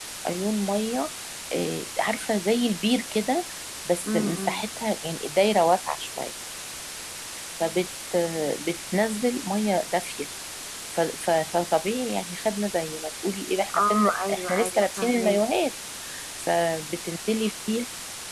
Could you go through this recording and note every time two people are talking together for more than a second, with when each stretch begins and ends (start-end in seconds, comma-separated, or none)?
13.8-15.4